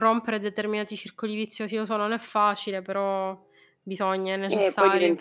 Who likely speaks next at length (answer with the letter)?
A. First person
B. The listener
B